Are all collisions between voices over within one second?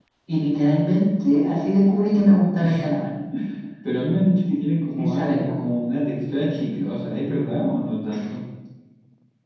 Yes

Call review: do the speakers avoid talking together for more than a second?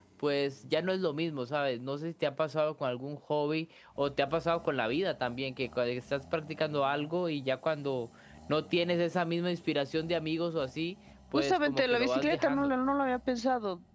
No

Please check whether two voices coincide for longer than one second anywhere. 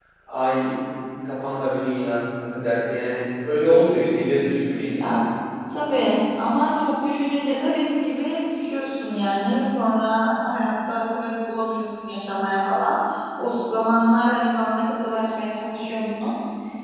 No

